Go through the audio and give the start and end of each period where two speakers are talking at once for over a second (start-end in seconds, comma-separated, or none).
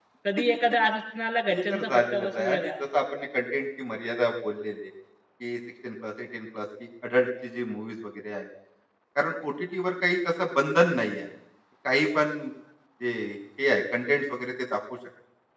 1.5-2.7